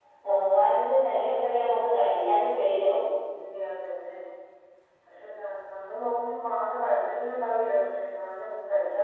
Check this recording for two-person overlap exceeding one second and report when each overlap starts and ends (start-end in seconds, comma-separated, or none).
none